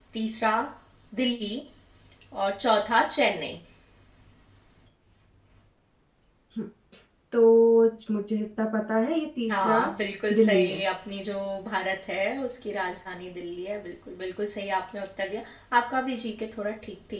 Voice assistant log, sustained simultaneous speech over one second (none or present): none